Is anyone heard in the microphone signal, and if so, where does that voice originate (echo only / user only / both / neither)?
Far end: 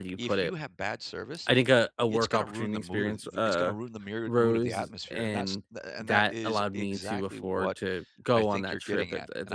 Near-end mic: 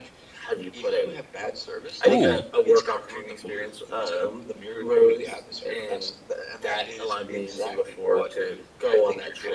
both